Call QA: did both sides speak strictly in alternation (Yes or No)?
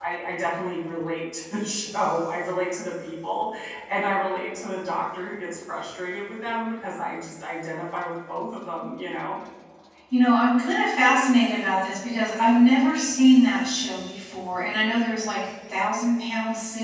Yes